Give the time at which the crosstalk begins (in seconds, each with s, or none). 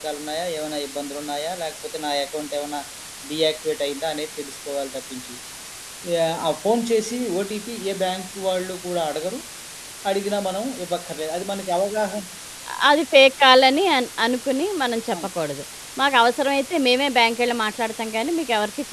none